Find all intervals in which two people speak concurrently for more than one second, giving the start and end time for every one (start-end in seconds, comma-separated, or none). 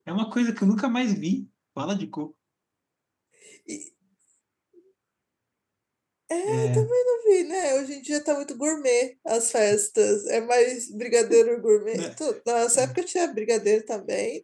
none